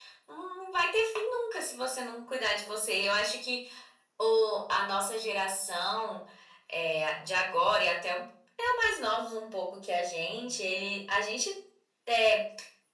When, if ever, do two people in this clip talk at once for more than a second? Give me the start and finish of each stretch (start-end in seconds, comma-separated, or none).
none